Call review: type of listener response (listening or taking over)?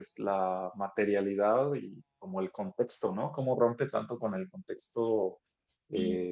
listening